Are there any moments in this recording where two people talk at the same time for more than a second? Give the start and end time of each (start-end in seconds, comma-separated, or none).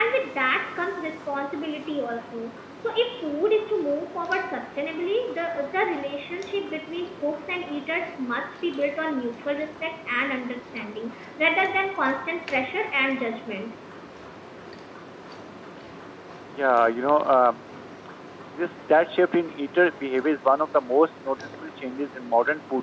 none